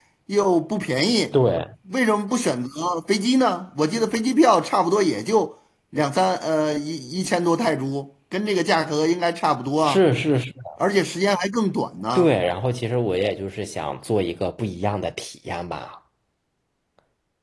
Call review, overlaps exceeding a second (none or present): none